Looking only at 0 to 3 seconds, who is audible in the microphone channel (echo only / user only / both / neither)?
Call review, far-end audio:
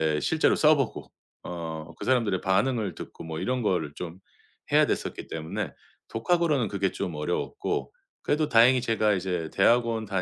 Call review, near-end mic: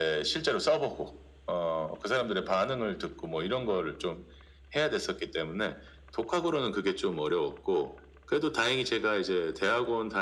echo only